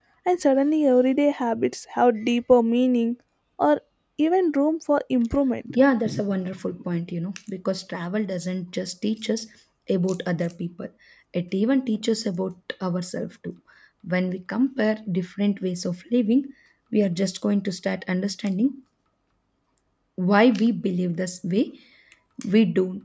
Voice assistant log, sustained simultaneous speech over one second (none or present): none